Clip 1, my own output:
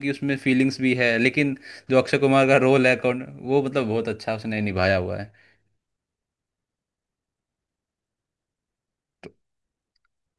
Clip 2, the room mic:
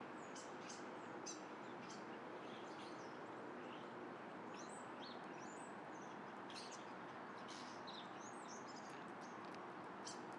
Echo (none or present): none